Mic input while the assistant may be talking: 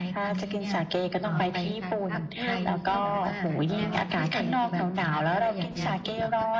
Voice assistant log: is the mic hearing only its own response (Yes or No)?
No